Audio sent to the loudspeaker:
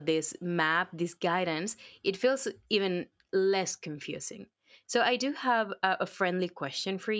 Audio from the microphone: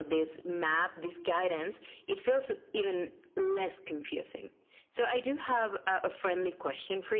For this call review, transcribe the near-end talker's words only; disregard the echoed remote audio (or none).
none